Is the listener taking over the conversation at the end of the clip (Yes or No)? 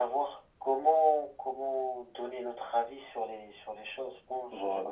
Yes